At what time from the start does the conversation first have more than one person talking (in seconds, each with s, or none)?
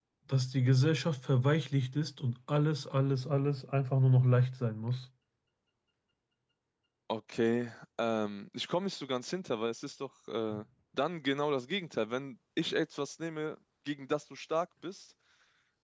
none